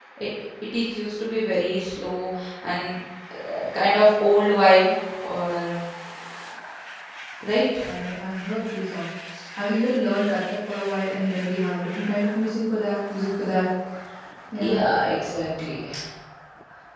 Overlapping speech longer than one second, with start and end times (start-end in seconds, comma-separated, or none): none